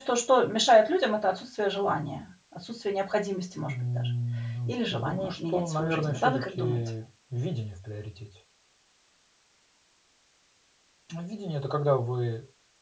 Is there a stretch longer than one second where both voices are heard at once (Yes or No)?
Yes